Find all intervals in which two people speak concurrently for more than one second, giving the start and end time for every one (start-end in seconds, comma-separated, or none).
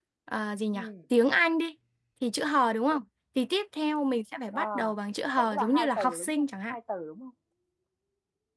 5.4-6.8